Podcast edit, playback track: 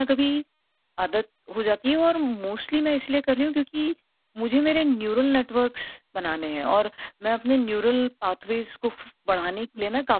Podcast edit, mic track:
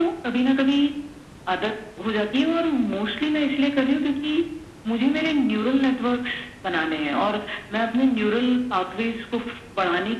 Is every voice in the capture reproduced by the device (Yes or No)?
Yes